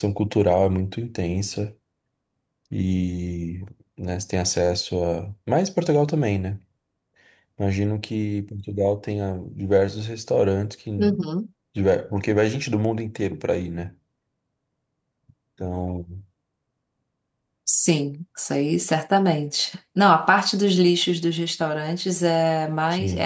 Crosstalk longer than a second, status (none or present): none